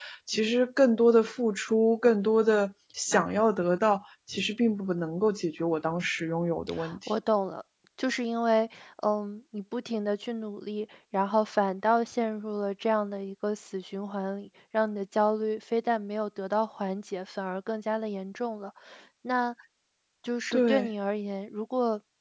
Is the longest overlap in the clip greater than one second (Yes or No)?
No